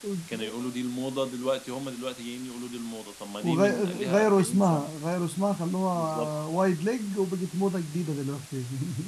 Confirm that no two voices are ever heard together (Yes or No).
No